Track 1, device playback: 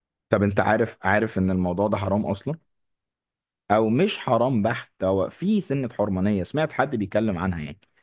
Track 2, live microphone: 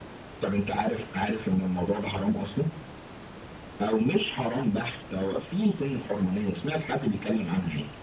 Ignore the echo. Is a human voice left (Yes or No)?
No